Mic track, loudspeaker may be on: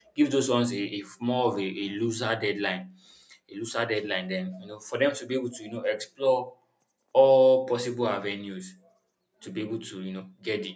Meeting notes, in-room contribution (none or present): present